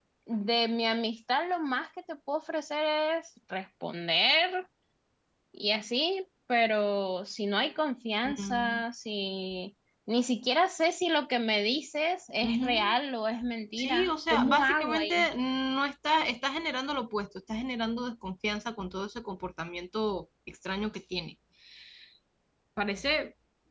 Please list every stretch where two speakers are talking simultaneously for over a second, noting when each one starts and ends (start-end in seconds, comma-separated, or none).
13.8-15.3